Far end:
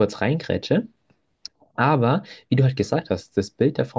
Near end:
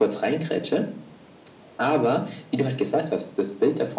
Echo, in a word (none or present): present